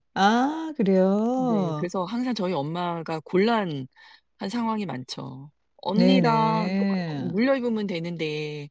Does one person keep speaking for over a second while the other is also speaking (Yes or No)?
Yes